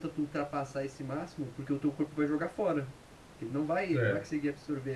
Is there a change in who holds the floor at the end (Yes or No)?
No